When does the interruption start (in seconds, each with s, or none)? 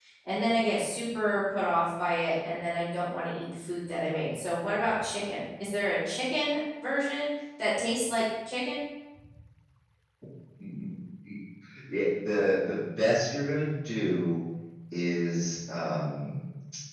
none